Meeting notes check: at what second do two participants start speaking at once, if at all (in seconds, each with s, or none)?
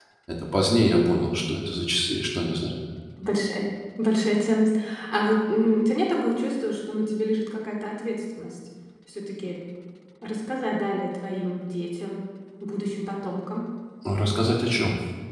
none